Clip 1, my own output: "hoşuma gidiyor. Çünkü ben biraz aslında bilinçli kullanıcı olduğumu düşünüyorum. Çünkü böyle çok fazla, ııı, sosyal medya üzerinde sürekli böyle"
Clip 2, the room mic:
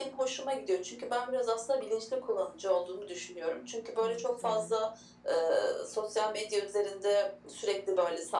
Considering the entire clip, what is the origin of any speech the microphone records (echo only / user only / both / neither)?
both